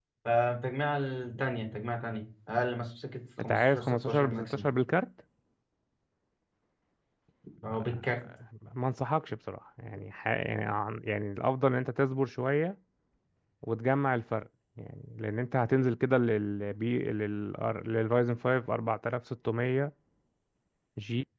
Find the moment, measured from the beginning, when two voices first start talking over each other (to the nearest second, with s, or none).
3 s